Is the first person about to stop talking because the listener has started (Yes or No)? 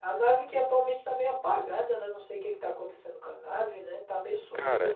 Yes